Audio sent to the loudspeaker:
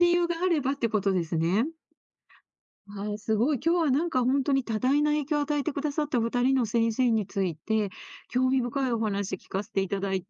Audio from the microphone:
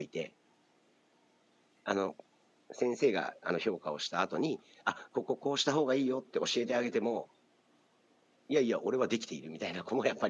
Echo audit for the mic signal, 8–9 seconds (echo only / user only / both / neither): user only